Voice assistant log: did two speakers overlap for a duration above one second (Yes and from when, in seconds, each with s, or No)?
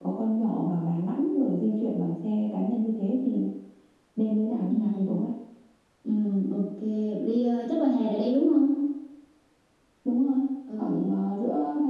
No